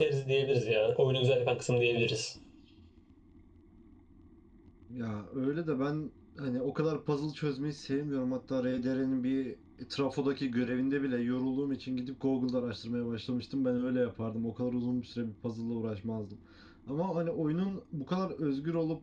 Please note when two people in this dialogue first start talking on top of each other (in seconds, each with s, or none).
none